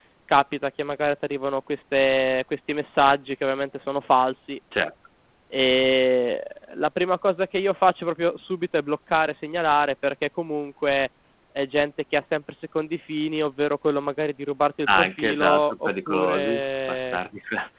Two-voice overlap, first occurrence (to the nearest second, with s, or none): 15 s